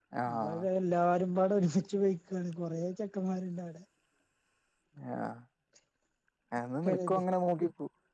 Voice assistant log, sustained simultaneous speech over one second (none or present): none